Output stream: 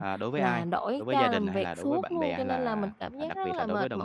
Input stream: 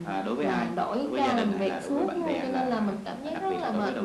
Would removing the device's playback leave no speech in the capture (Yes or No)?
Yes